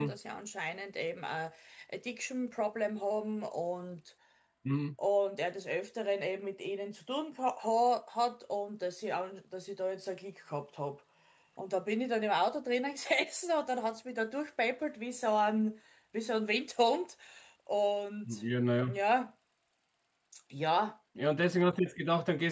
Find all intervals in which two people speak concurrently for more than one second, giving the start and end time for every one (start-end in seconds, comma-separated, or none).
none